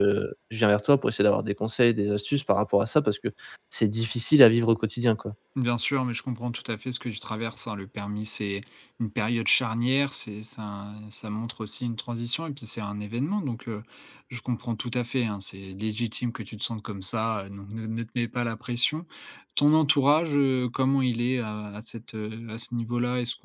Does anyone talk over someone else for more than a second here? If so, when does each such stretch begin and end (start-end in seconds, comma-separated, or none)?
none